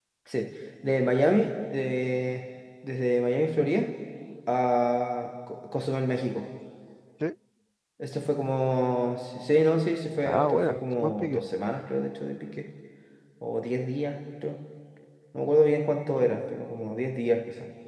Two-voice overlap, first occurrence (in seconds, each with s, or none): 10.2 s